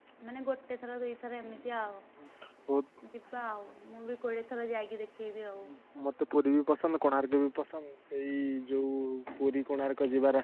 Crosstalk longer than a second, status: none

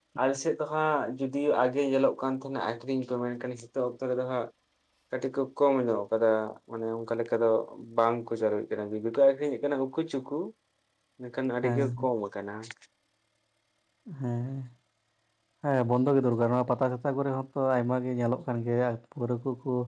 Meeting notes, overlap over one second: none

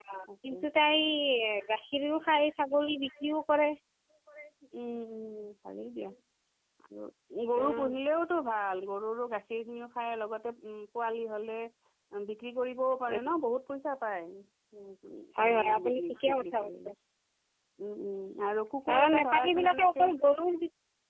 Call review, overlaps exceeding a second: present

